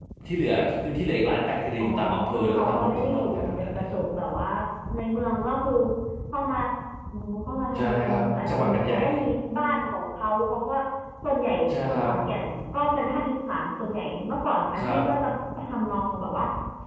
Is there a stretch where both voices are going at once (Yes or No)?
Yes